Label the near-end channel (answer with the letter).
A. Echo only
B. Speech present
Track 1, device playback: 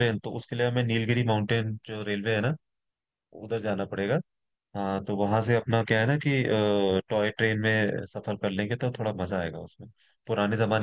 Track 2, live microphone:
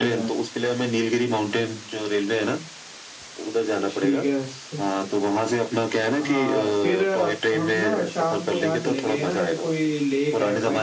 B